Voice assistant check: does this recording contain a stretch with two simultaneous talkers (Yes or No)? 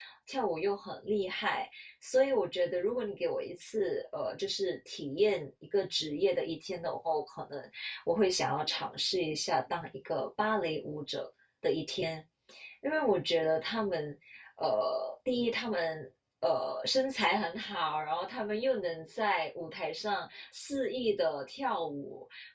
No